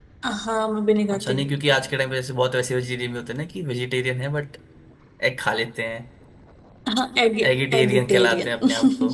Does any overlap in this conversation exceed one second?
Yes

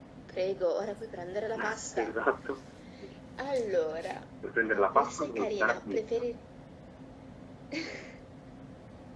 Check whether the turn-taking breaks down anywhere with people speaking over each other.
Yes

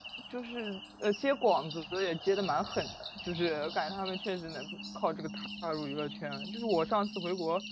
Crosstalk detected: No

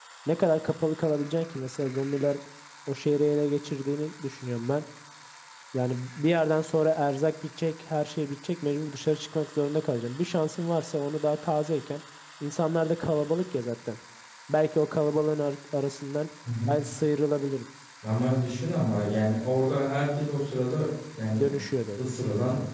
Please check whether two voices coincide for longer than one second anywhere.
No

